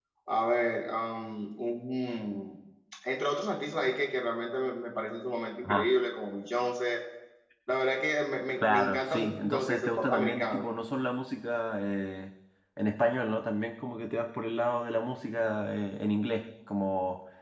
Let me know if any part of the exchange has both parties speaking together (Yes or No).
Yes